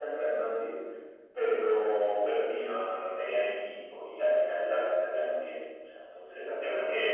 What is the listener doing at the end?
listening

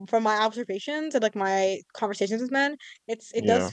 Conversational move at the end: listening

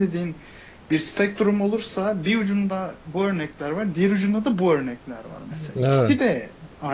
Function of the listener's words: listening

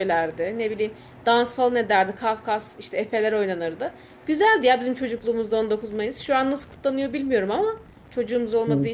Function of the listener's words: listening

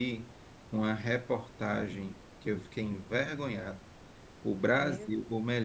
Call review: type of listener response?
listening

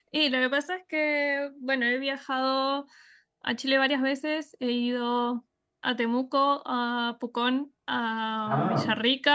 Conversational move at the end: listening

